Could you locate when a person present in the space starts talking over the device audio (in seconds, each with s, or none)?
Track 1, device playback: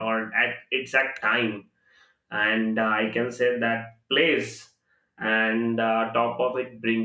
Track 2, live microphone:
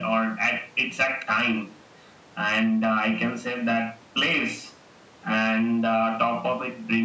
none